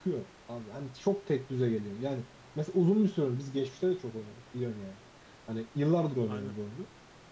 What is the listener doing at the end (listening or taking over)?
listening